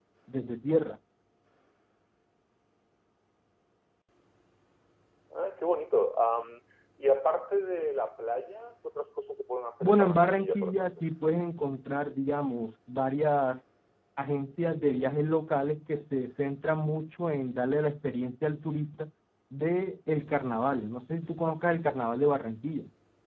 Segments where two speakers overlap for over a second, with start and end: 9.8-11.0

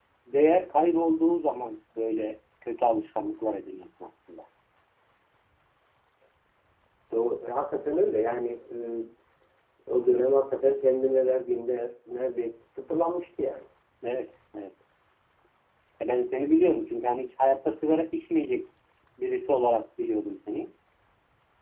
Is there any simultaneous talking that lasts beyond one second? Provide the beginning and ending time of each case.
none

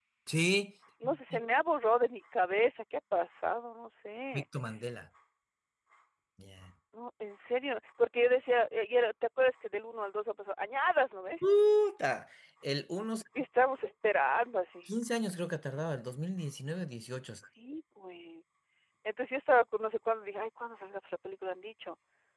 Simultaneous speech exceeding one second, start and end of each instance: none

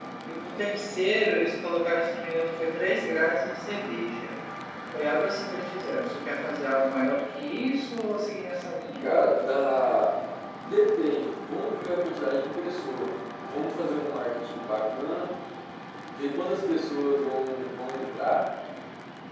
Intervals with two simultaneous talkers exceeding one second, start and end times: none

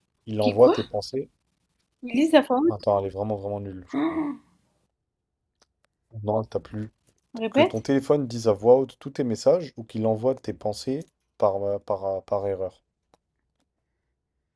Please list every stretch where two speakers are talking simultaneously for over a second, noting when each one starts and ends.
none

